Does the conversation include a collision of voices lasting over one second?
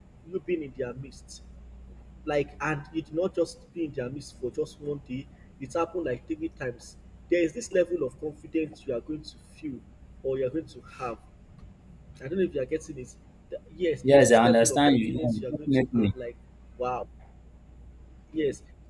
Yes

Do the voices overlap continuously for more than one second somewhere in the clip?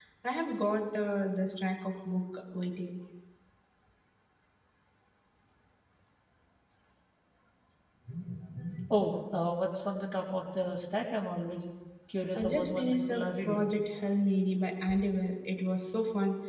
Yes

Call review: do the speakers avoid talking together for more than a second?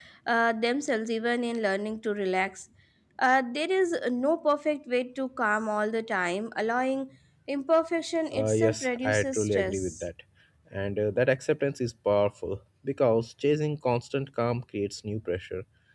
No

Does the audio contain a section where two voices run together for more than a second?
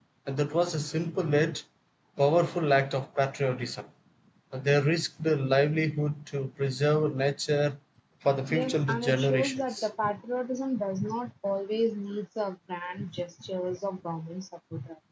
Yes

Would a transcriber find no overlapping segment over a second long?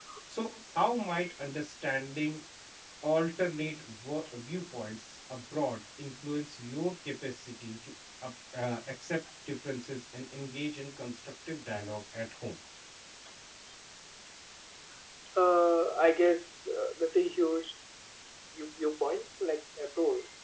Yes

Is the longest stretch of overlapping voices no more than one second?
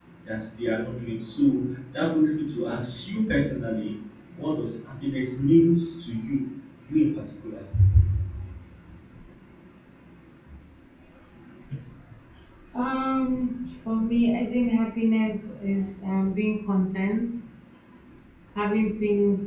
Yes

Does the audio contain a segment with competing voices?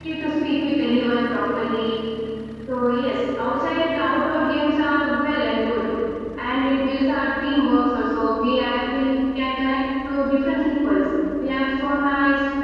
No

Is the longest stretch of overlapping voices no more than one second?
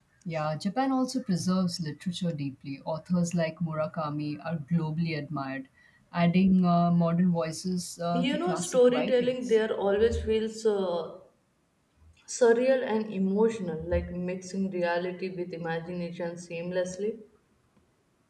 No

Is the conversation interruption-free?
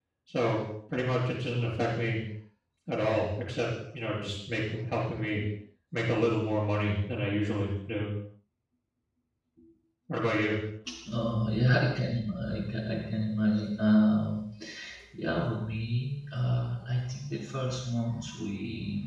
Yes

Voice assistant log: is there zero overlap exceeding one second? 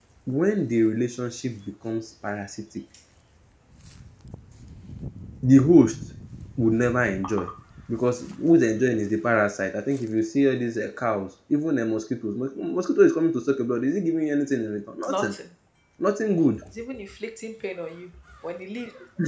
Yes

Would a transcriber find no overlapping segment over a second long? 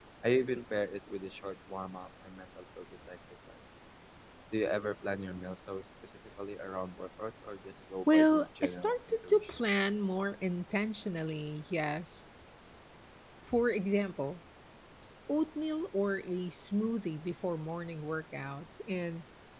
No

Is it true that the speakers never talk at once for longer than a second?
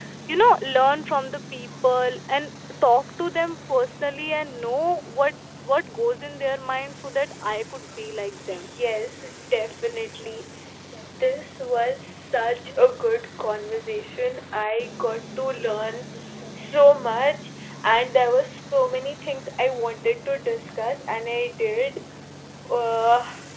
Yes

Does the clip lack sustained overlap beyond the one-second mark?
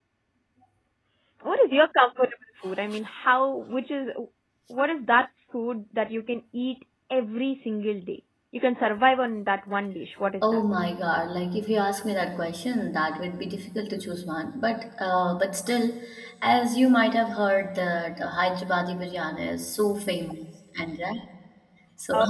Yes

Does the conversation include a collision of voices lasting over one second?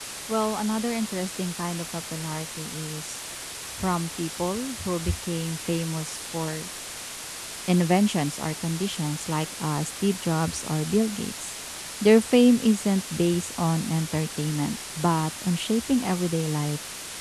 No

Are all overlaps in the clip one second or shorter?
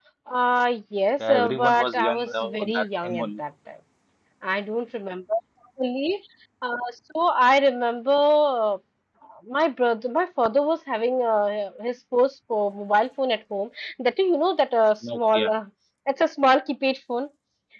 No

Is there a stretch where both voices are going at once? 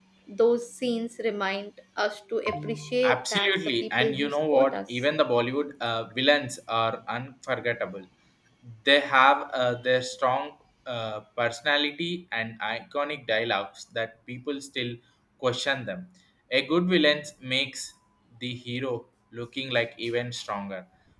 Yes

